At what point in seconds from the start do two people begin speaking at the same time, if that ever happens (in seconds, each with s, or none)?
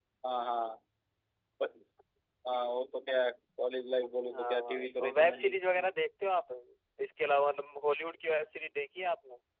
4.3 s